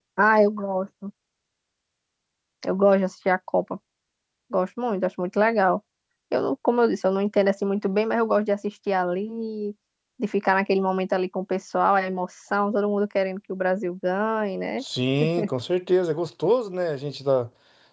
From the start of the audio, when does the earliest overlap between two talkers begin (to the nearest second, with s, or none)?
none